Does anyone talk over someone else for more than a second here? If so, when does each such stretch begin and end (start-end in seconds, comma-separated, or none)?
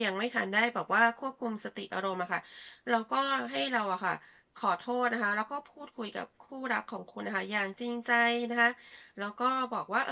none